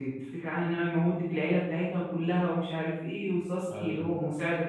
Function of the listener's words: listening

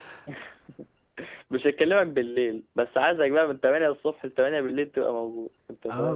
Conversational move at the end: taking over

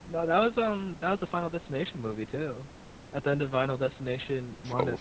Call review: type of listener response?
taking over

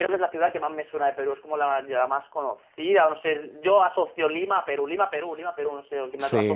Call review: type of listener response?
taking over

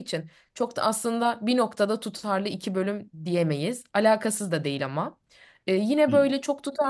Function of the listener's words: listening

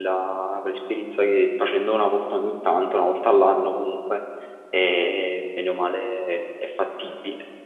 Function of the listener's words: taking over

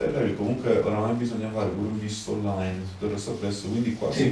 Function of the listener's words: listening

